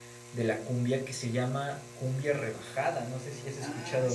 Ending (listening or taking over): taking over